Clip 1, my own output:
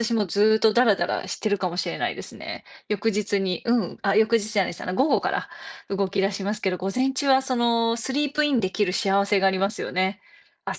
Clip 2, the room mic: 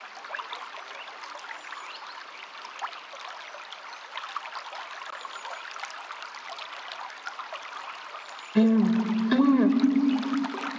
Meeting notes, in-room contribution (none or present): present